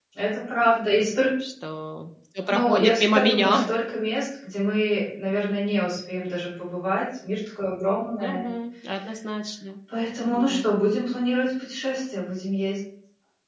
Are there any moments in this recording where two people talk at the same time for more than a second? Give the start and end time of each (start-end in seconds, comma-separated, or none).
2.5-3.7